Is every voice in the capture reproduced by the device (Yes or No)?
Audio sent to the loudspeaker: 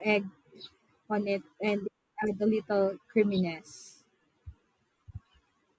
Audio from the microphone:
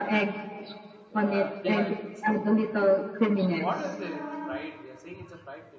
No